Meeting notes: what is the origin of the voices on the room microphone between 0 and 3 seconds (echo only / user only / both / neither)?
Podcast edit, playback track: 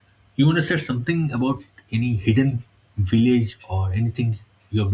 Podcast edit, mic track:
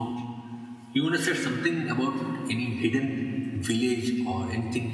echo only